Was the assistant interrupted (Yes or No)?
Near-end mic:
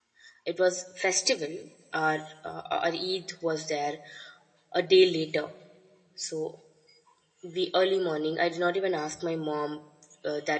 Yes